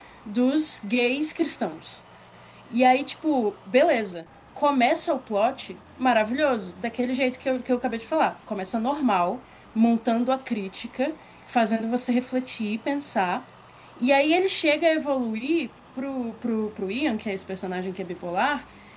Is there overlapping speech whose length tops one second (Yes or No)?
No